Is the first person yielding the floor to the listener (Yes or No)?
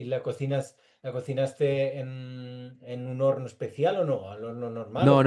Yes